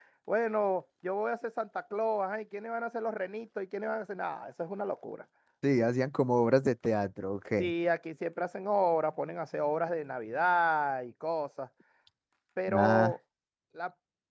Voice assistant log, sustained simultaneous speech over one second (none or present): none